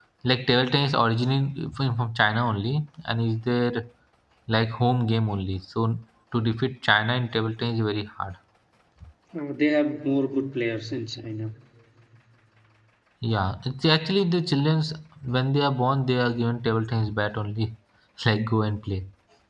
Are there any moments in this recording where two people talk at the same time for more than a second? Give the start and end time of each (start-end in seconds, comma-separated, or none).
none